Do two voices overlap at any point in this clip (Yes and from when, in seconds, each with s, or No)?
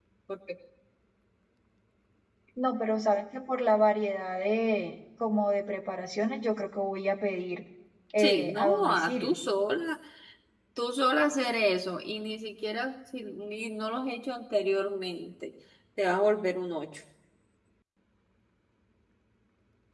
Yes, from 8.2 s